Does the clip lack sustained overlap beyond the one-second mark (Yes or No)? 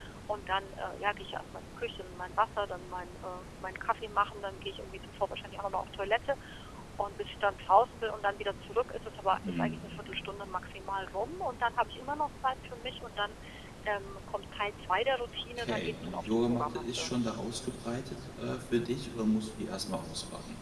No